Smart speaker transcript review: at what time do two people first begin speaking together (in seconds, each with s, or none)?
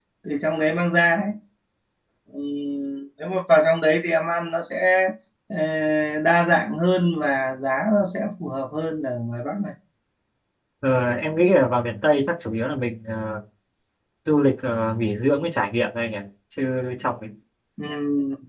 none